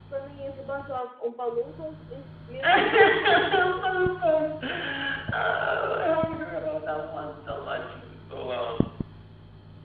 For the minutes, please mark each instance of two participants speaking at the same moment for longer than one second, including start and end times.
2.6-3.9

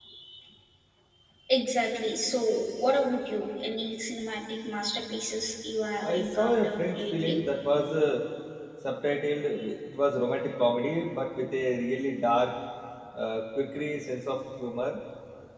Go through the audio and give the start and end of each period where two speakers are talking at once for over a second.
6.0-7.4

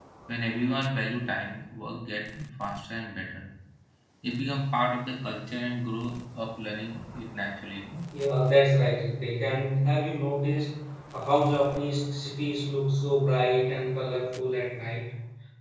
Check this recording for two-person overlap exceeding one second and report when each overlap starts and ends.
none

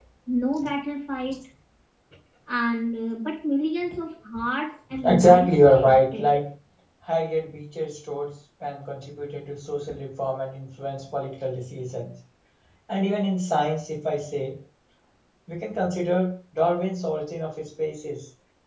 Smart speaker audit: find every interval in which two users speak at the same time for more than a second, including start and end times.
5.0-6.3

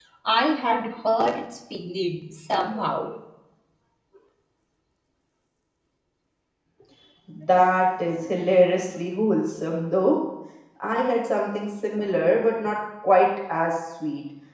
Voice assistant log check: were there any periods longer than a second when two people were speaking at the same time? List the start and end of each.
none

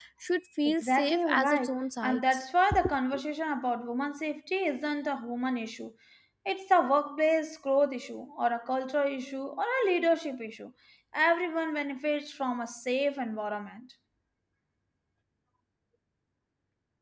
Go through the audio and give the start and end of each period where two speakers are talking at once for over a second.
0.7-2.4

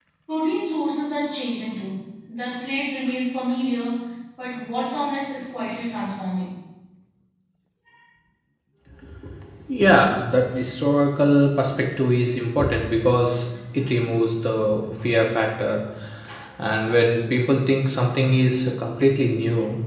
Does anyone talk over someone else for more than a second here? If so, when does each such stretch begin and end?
none

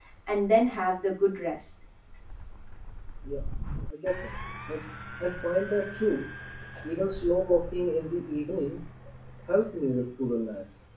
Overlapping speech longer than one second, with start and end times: none

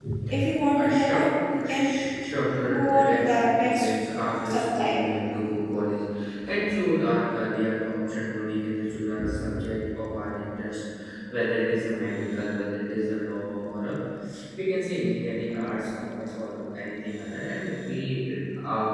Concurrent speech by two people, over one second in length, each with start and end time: 2.7-3.9

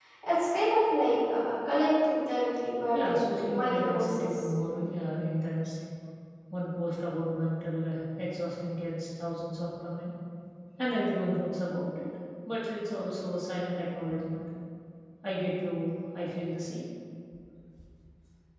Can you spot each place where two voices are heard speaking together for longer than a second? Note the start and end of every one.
2.9-4.5

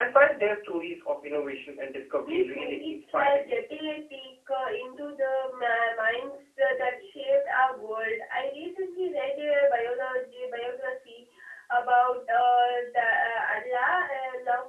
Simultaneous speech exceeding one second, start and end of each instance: 2.2-3.4

